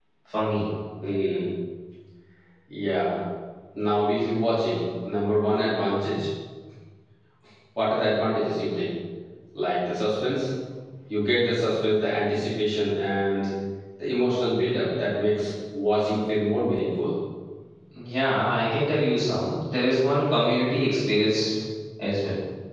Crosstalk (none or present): none